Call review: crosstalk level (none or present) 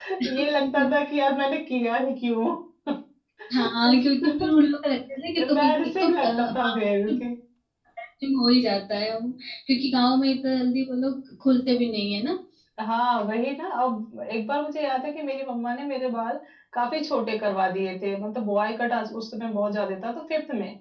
present